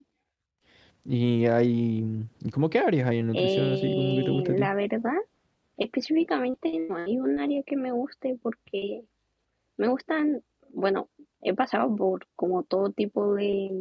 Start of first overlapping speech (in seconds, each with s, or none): 3.3 s